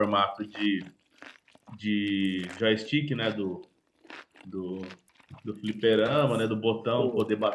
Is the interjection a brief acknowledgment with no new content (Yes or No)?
Yes